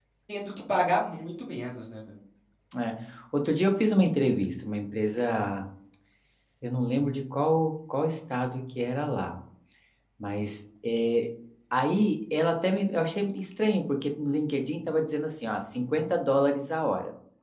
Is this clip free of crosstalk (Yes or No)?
Yes